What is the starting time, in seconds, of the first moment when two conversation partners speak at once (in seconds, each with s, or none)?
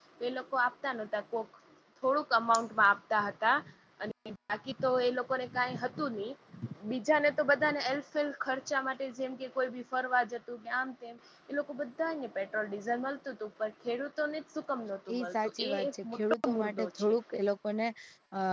15.1 s